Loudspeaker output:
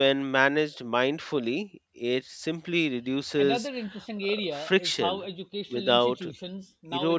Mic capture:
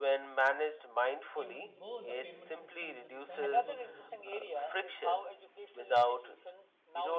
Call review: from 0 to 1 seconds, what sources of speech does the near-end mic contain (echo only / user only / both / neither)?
echo only